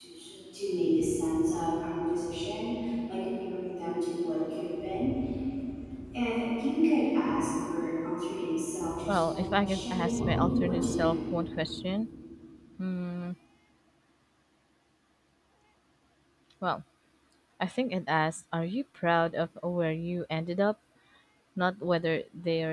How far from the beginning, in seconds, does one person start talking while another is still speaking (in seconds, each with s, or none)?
9.1 s